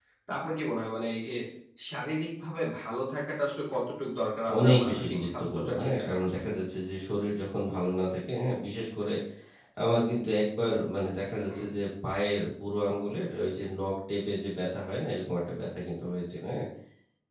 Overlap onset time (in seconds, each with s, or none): 4.5 s